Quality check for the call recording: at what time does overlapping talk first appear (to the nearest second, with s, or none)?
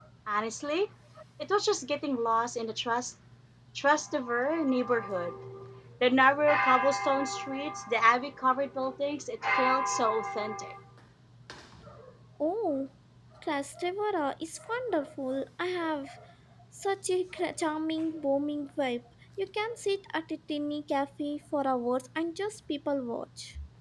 none